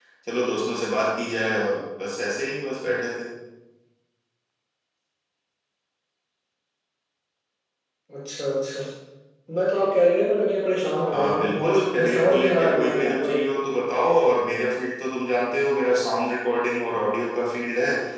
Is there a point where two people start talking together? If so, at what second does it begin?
11.1 s

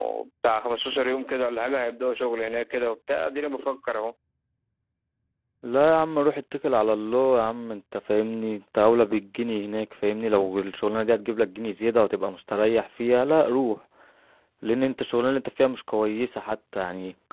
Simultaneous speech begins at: none

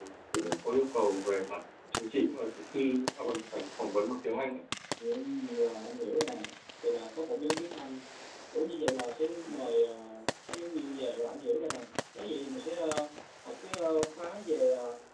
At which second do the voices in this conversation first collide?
none

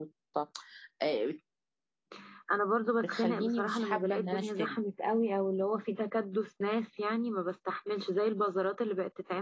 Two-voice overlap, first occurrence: 3.0 s

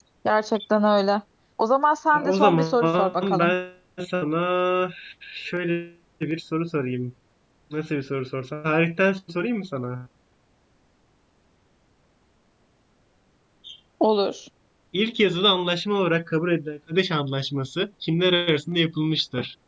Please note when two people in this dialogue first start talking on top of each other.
2.2 s

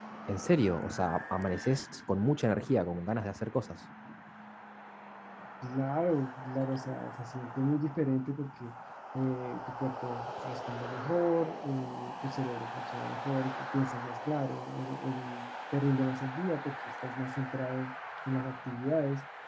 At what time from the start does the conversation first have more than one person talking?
none

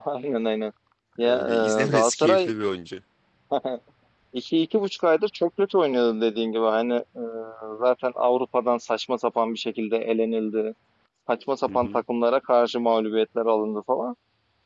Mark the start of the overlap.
1.2 s

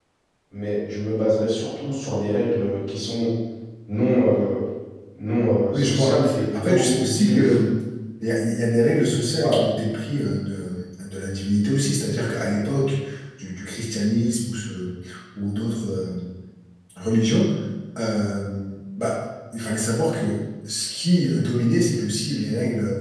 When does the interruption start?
5.7 s

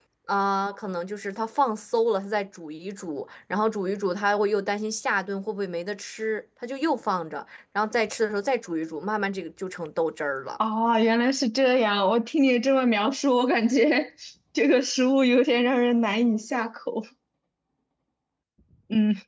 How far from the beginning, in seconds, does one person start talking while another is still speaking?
none

